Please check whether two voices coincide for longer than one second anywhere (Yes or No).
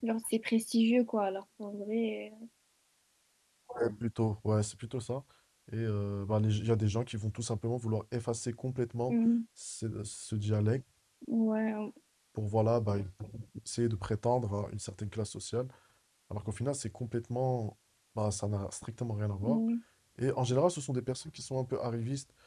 No